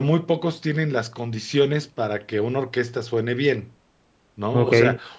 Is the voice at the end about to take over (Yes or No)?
No